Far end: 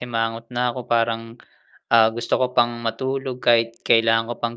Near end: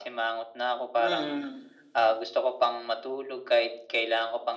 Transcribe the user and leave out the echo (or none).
Mm.